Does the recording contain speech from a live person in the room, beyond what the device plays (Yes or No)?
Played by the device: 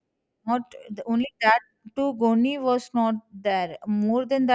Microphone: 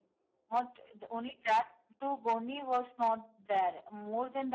No